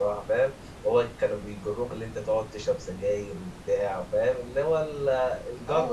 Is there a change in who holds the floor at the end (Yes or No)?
Yes